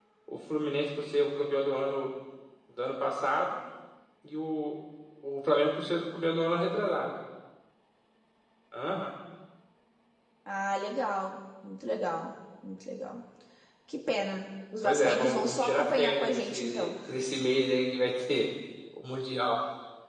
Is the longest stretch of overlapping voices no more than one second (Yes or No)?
No